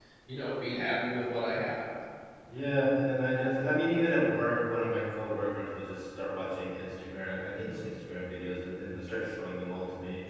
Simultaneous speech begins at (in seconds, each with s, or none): none